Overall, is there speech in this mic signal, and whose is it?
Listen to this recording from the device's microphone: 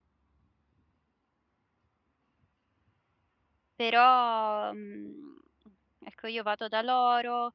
user only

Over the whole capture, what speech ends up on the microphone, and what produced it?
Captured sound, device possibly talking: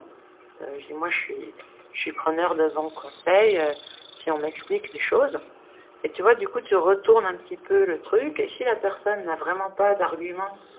echo only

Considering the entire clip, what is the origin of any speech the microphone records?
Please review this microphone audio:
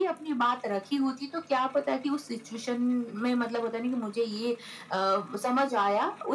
echo only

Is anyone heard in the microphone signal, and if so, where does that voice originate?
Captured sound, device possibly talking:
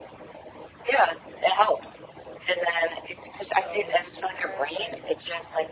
both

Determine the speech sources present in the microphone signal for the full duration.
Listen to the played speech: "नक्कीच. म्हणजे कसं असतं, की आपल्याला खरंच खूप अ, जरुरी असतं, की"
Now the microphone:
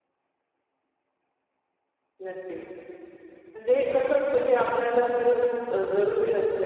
echo only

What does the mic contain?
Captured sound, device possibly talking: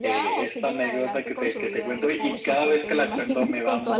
both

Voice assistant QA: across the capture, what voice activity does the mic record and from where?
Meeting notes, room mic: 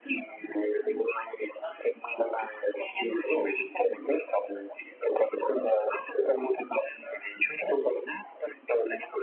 echo only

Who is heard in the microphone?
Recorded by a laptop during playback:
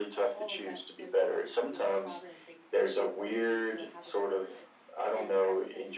both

